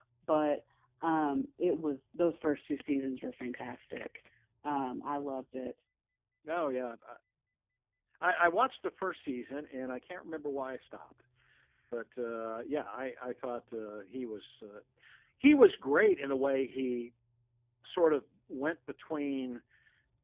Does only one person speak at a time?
Yes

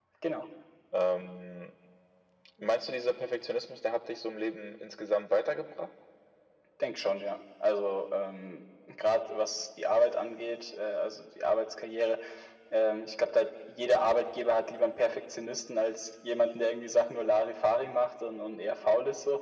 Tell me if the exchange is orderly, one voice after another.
Yes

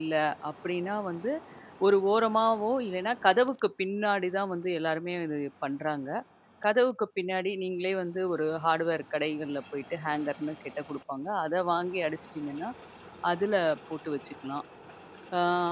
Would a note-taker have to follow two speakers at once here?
No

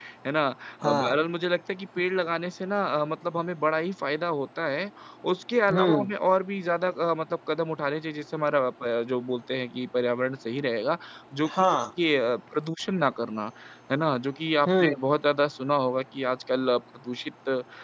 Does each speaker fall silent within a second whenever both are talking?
Yes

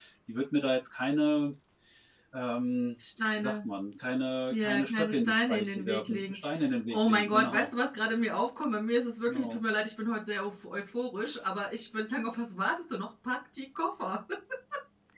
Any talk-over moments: Yes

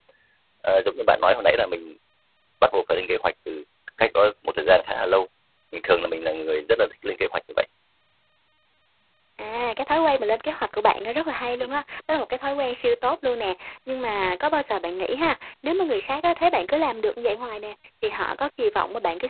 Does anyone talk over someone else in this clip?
No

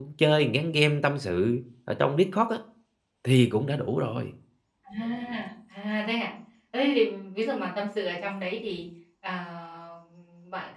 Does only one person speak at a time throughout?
Yes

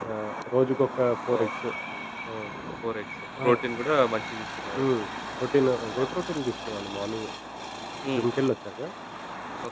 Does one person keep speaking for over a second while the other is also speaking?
No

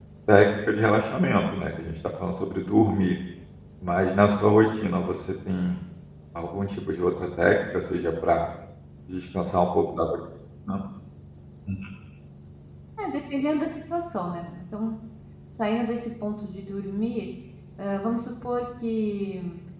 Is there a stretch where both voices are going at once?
No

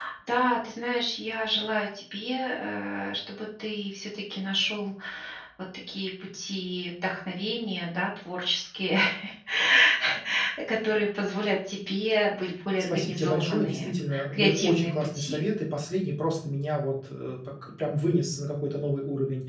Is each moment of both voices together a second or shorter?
No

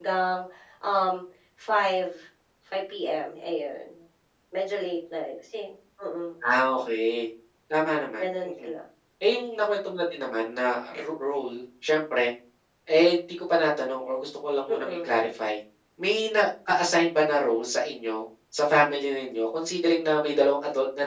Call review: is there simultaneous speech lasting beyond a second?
No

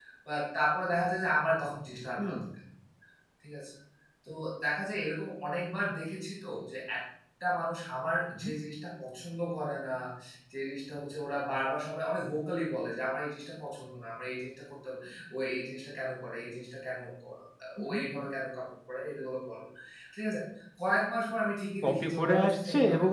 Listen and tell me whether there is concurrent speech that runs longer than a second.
Yes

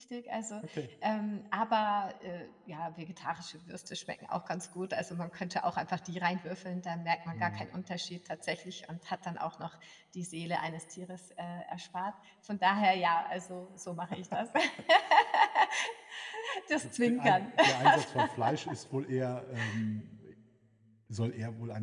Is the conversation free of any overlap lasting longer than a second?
No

